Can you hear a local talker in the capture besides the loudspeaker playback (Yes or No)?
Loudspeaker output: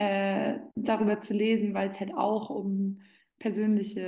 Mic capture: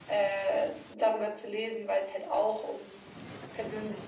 No